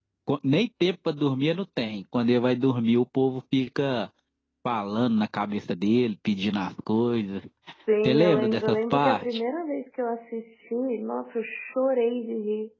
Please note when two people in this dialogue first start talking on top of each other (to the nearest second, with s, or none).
8 s